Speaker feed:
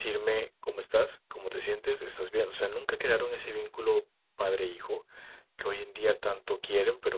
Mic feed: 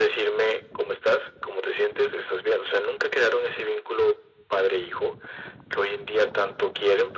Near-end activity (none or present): none